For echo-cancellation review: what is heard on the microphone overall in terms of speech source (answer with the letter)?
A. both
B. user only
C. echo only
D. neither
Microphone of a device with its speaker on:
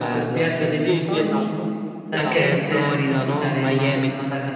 A